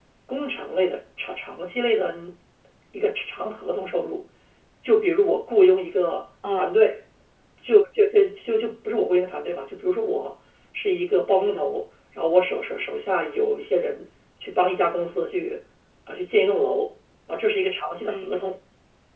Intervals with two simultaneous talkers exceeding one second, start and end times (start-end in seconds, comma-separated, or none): none